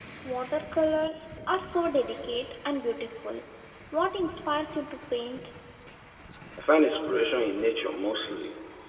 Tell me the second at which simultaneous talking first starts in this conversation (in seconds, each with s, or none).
none